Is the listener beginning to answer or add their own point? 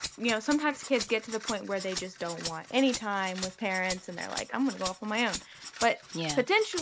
No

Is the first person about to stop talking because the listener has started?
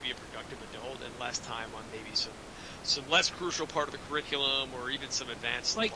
Yes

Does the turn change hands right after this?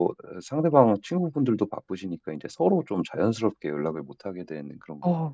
Yes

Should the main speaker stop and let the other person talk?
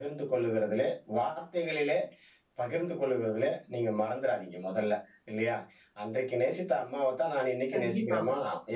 No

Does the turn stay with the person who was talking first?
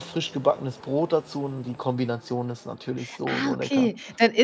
No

